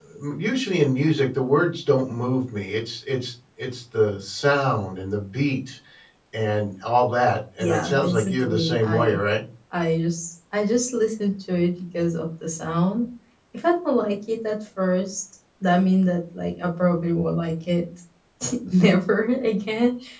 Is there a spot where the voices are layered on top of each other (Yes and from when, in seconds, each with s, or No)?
Yes, from 7.6 s